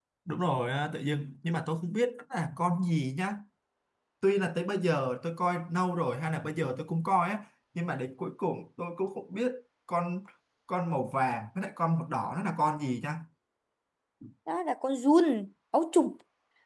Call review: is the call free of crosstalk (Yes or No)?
Yes